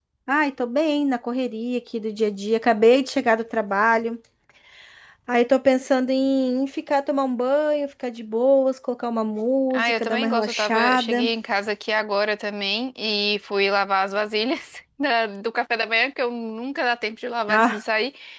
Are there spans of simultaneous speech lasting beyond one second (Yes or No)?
Yes